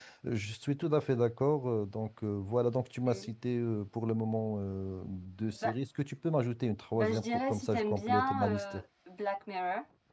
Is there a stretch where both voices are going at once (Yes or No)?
Yes